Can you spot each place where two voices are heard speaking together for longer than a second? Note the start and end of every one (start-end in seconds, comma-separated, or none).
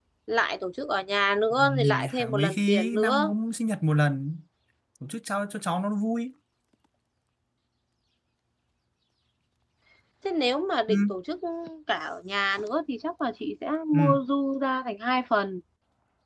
1.6-3.3